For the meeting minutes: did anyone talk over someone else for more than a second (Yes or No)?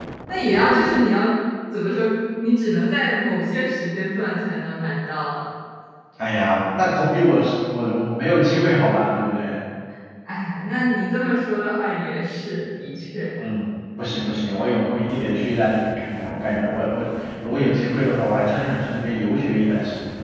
No